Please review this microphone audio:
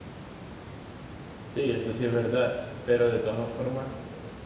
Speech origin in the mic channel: user only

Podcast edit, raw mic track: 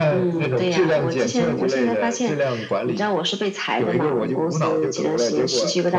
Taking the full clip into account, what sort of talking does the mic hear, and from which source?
echo only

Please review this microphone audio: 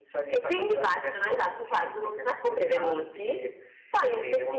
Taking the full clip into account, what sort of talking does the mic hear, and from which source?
echo only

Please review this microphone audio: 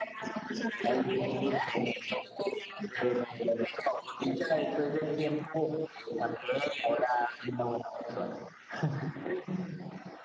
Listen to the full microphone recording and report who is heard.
echo only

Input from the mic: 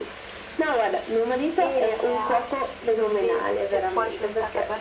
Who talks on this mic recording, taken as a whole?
both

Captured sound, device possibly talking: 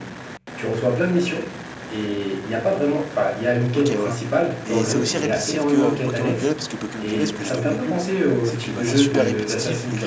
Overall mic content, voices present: both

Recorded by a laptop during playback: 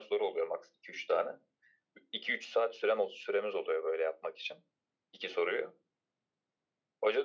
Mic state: echo only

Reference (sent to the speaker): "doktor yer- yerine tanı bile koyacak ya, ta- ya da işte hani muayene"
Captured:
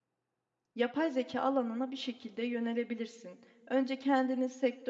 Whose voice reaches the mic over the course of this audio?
user only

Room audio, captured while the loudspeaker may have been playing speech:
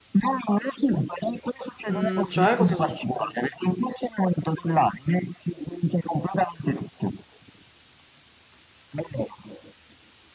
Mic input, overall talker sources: both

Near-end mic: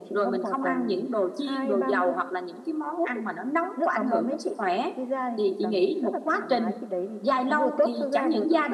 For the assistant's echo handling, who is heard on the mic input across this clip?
echo only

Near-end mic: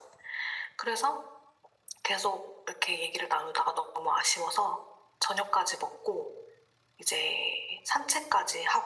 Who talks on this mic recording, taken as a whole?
echo only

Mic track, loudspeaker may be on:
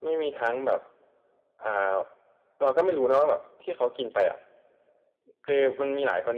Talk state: echo only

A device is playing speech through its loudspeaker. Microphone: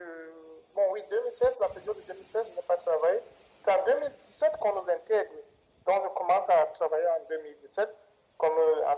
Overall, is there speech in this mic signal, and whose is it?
echo only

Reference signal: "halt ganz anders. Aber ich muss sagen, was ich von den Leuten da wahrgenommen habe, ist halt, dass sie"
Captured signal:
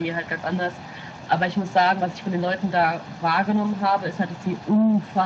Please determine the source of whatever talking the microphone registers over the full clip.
echo only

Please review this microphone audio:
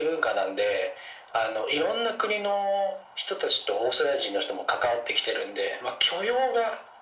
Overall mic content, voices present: echo only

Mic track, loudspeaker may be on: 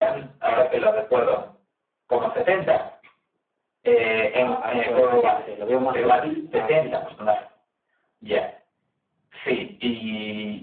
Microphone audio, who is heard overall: both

